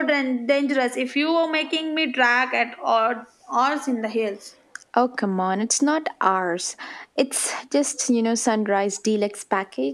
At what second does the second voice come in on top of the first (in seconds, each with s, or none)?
none